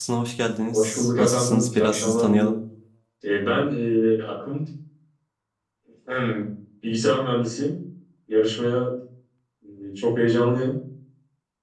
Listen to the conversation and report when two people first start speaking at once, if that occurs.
0.7 s

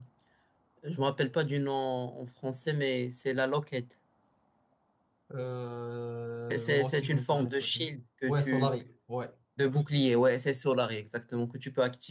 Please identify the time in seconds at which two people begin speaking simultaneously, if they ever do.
6.5 s

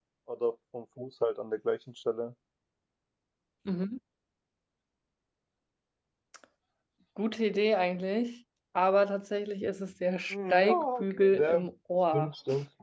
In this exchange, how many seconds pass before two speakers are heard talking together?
10.3 s

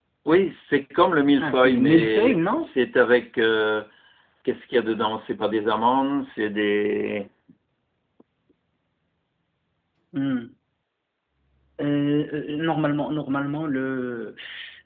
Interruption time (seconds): 1.4 s

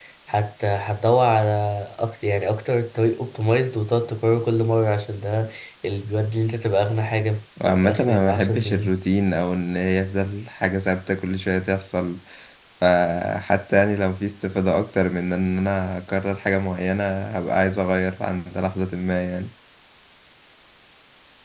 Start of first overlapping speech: 7.6 s

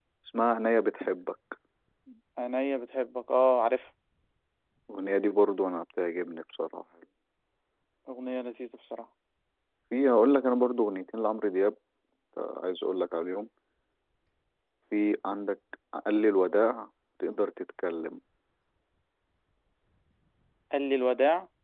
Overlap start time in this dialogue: none

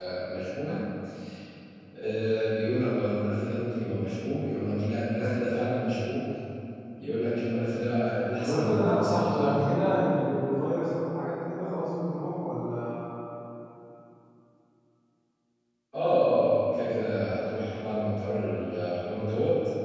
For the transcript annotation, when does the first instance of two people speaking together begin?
8.4 s

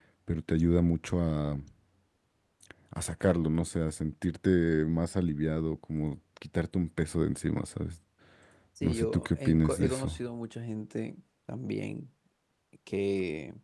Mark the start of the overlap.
8.8 s

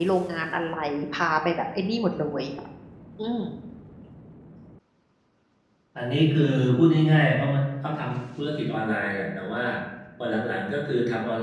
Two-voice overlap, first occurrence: none

